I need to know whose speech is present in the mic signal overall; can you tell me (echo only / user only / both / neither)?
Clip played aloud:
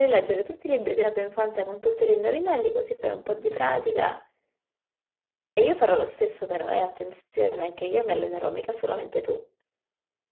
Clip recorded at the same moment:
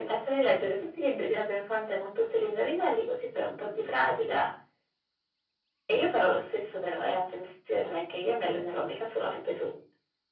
echo only